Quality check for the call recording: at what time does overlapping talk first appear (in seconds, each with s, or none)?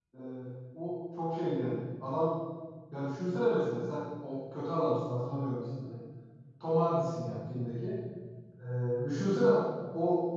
none